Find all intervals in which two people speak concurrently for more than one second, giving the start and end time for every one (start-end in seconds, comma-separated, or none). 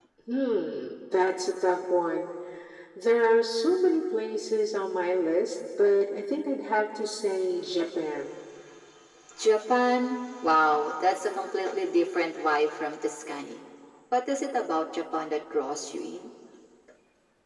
none